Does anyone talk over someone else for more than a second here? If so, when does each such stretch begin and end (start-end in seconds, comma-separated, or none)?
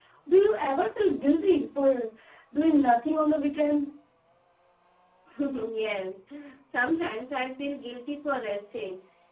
none